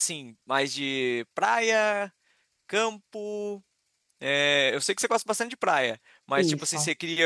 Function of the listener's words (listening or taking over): listening